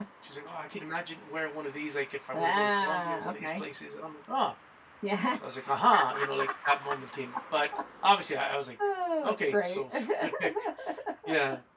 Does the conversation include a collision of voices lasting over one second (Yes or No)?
Yes